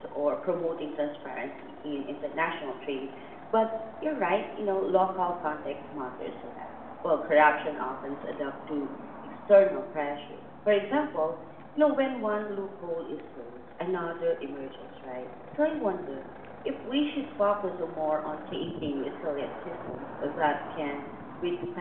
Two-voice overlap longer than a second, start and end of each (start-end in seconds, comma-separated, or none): none